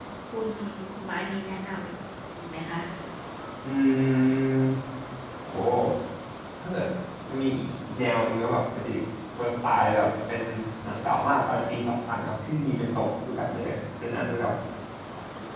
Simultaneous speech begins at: none

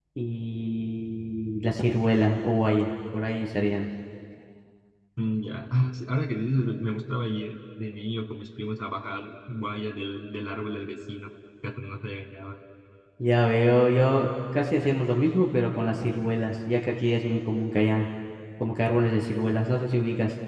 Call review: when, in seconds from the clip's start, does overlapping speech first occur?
none

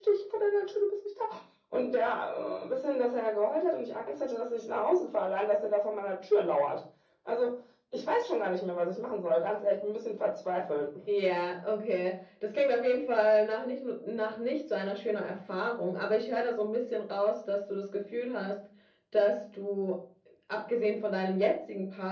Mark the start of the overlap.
none

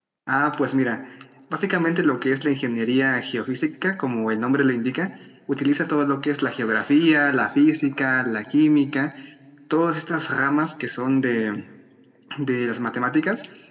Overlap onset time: none

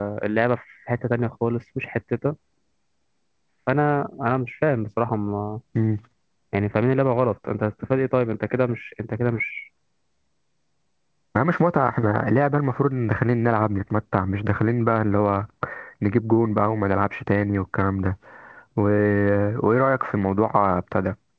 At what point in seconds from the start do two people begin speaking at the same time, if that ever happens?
none

